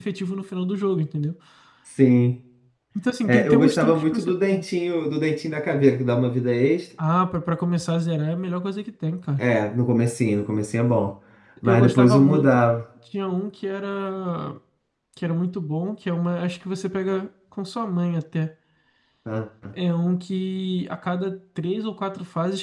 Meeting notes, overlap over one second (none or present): present